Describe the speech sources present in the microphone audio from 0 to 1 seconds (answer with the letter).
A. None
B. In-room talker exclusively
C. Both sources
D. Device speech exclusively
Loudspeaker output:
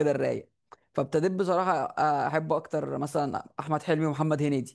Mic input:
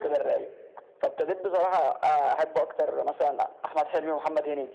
D